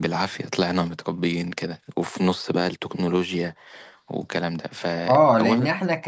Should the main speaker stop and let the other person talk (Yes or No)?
Yes